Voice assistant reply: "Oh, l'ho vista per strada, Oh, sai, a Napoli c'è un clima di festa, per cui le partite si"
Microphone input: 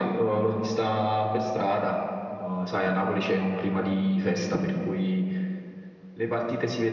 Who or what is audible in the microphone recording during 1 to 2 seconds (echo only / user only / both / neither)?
echo only